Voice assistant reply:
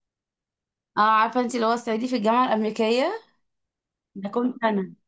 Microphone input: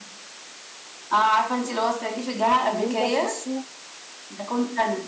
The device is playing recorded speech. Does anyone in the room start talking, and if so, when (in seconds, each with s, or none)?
2.7 s